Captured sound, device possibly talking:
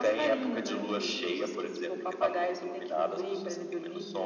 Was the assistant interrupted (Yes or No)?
No